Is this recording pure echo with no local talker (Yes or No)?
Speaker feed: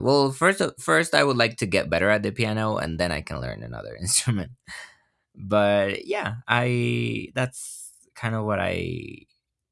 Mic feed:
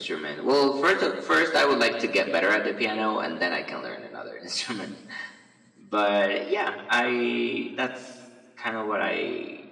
Yes